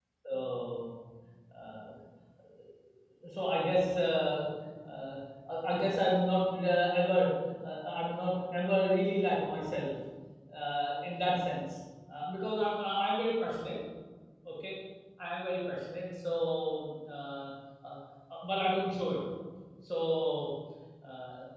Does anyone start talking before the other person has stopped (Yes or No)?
No